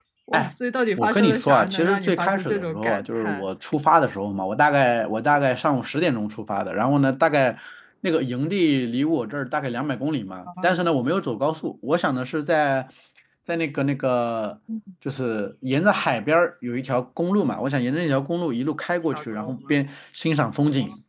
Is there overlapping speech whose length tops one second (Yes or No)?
Yes